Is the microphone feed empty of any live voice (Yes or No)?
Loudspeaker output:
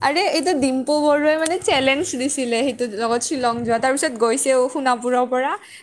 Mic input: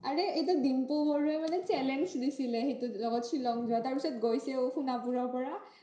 Yes